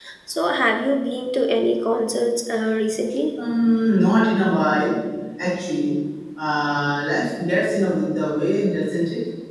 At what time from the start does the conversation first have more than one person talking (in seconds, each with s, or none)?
none